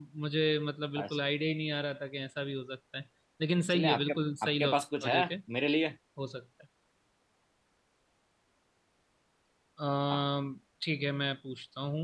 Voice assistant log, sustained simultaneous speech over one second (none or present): present